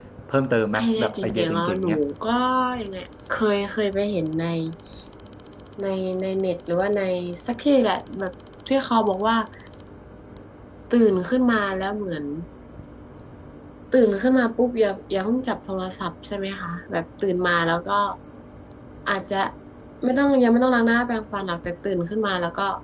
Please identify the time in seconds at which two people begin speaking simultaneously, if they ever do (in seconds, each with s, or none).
0.8 s